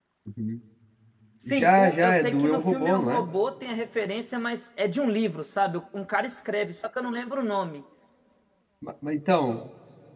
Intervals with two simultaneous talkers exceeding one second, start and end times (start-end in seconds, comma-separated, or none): 1.5-3.2